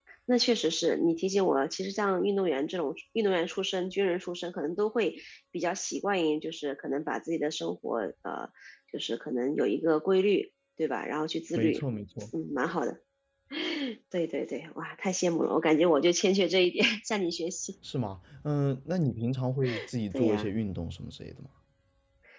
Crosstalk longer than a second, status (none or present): none